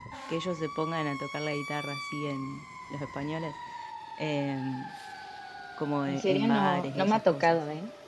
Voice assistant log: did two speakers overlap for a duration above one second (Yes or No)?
Yes